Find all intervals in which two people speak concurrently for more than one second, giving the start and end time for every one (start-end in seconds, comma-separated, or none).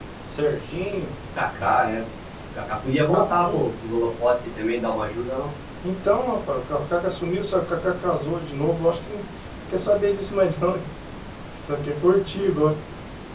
none